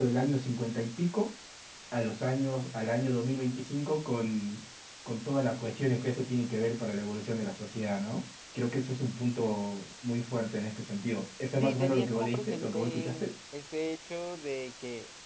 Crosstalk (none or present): present